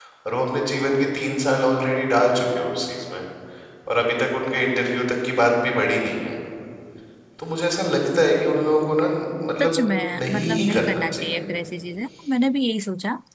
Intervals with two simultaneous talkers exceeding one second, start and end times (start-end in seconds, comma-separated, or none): 10.2-11.4